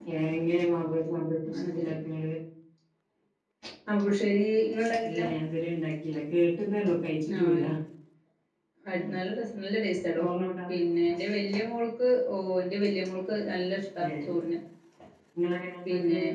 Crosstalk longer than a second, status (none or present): none